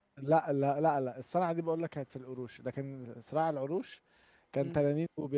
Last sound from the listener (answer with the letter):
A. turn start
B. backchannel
A